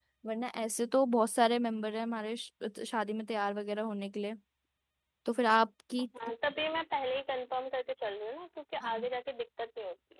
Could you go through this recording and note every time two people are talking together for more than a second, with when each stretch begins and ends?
none

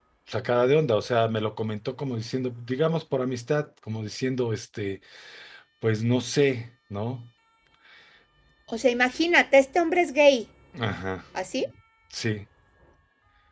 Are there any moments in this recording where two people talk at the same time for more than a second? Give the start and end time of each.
none

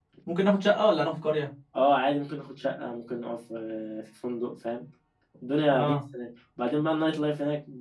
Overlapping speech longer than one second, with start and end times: none

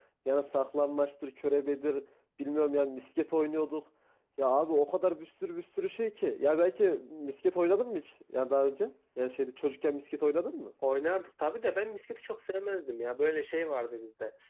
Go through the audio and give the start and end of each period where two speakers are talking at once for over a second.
none

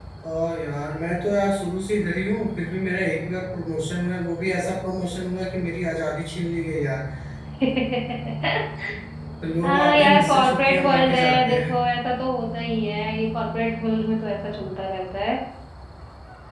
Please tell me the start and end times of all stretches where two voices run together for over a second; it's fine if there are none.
9.6-11.7

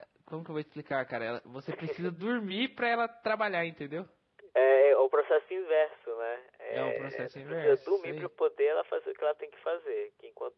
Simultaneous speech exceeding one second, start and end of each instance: 6.7-8.3

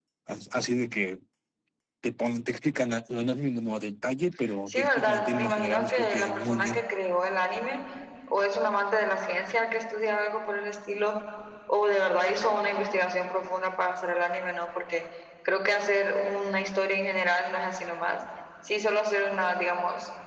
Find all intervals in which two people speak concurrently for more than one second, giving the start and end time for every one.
4.7-6.8

